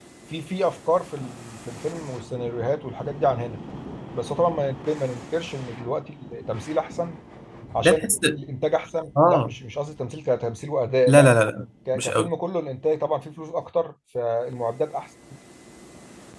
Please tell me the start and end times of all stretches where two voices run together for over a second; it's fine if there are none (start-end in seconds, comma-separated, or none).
none